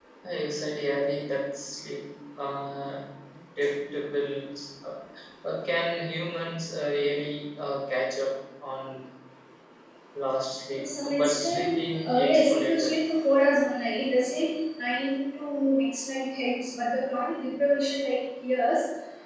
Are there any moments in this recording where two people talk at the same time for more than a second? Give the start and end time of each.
10.8-12.9

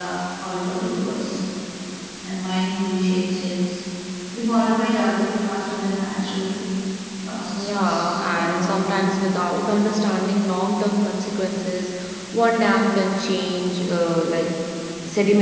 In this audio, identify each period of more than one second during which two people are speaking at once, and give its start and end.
7.6-9.1

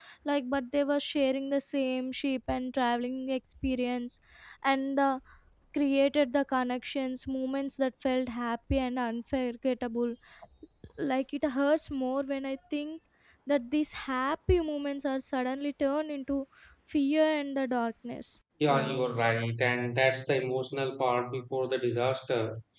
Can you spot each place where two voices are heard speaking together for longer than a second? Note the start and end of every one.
none

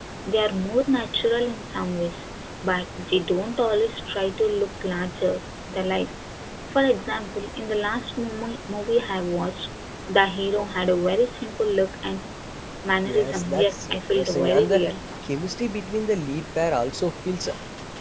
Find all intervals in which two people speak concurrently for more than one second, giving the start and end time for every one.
13.1-14.8

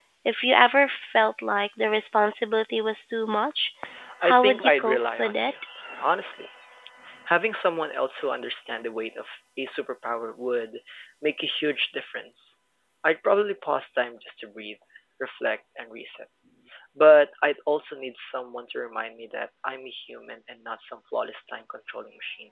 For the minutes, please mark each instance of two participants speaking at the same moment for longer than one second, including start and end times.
4.3-5.5

